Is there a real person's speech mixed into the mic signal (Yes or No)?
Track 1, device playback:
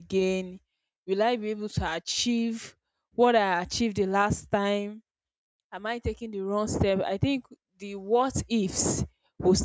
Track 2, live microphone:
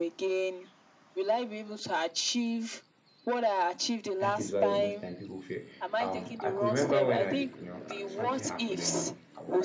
Yes